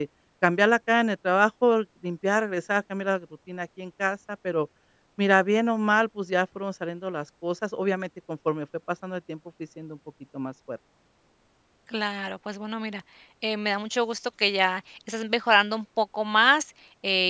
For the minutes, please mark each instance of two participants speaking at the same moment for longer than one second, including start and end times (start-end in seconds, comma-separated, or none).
none